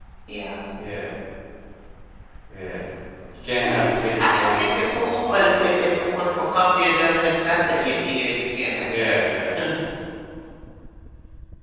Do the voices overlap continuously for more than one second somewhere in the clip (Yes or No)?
Yes